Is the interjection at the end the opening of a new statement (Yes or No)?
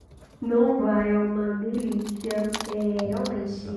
No